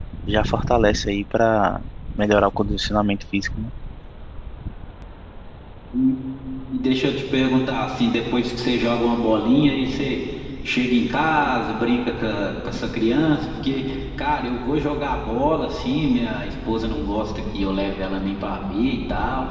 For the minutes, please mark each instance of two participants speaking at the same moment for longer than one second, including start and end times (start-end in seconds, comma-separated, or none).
none